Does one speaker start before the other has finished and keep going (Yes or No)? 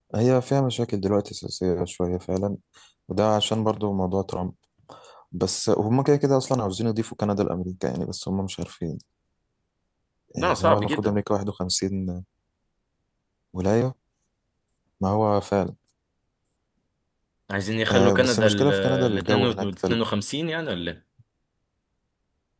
Yes